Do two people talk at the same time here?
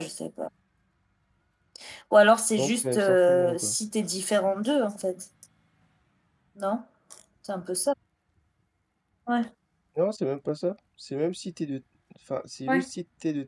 Yes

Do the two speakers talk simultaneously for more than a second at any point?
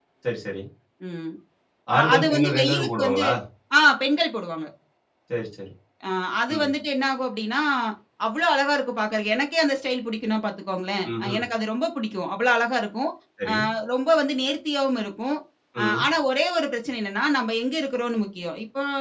Yes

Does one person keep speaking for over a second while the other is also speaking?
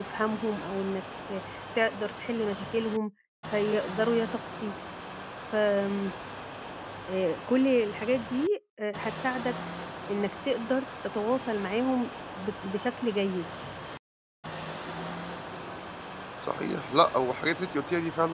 No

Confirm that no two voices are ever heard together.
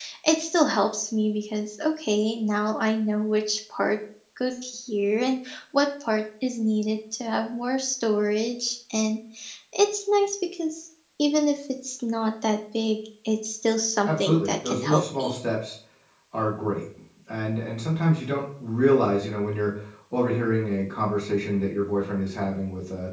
No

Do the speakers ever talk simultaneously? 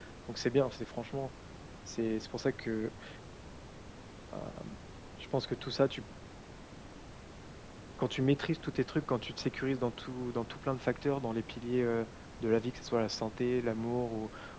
No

